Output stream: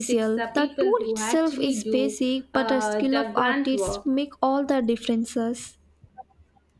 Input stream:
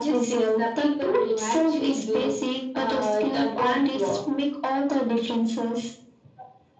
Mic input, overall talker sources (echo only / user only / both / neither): echo only